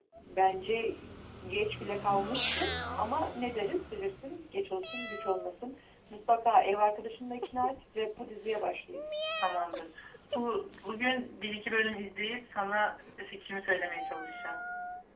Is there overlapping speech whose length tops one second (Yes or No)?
No